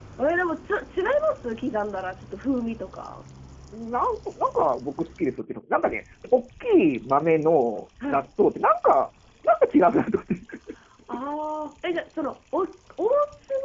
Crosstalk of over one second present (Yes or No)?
No